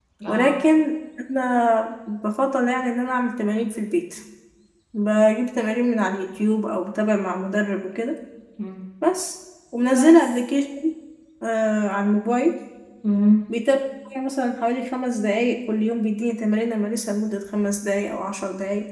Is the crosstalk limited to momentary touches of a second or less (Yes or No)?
Yes